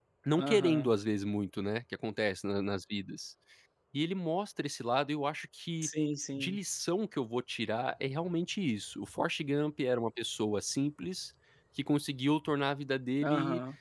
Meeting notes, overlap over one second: none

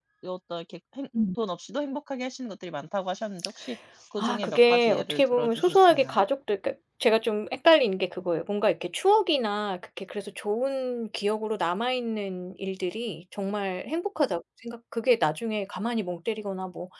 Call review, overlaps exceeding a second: present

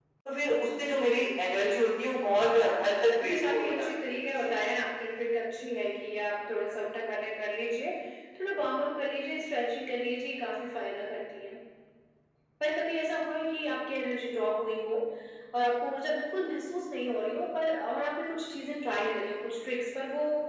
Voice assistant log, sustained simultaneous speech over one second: present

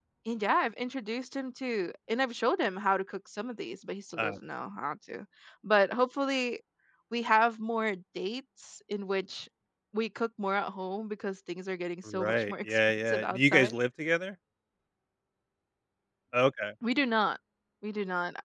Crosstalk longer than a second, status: present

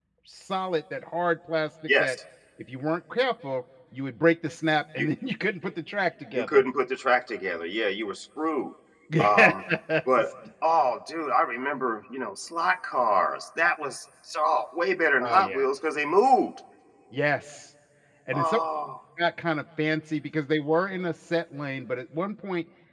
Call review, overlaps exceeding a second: none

